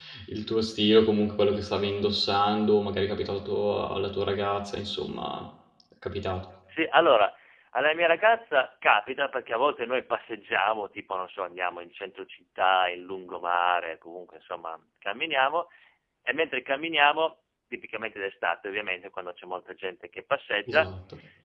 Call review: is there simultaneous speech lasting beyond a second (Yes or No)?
No